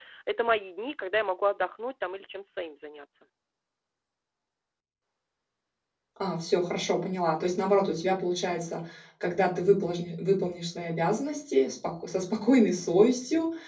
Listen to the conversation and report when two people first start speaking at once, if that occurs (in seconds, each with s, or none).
none